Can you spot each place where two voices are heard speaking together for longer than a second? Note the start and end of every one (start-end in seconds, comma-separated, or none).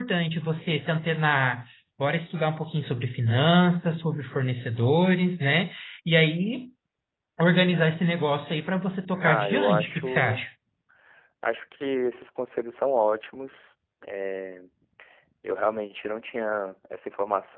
9.2-10.4